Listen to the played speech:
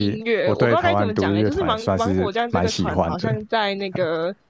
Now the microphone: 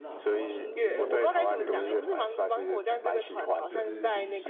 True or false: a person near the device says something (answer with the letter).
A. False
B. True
B